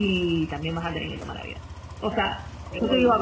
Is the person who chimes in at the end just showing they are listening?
Yes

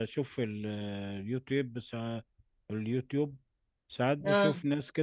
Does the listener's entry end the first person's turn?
No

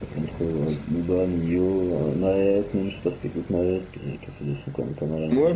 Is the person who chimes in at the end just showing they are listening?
No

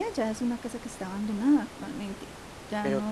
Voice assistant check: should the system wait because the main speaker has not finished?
Yes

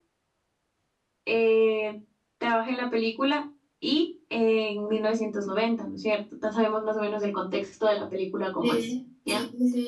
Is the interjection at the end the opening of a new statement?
Yes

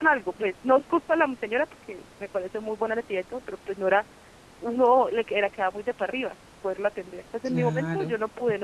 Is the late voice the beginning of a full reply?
No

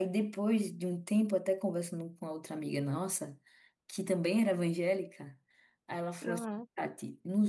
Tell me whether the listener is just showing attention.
Yes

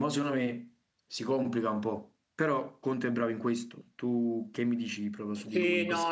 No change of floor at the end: No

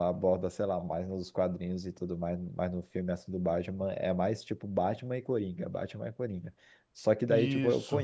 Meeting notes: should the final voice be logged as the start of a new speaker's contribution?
No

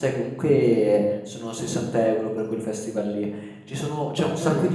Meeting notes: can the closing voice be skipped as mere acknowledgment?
Yes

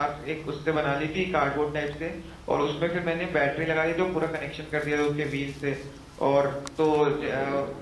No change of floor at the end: Yes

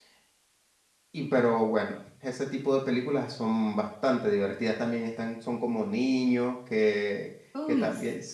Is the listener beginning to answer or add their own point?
No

